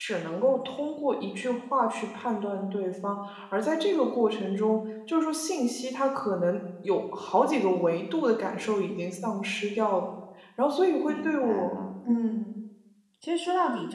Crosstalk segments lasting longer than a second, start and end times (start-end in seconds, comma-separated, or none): 11.1-12.4